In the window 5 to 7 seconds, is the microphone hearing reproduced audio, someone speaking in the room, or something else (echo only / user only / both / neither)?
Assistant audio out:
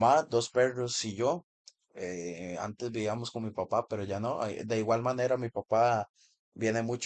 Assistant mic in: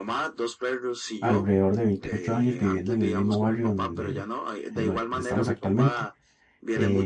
both